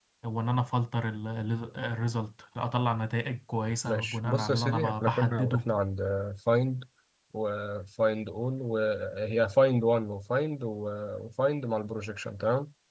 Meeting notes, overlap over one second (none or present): present